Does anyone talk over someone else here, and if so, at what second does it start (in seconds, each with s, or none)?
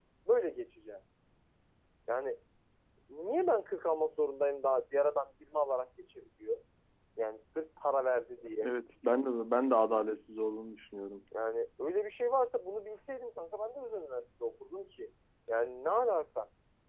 none